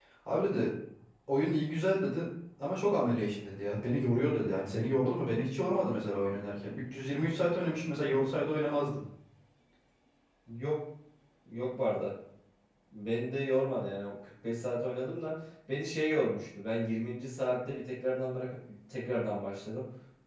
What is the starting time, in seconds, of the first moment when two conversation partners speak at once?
none

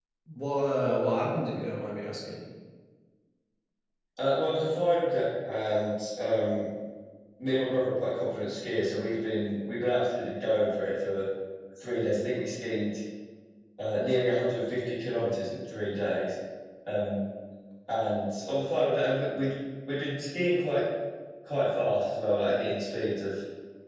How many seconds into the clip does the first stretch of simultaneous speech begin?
none

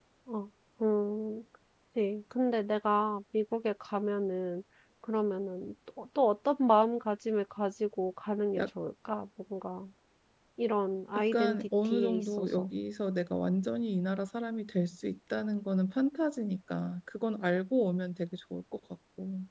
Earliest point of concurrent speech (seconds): 11 s

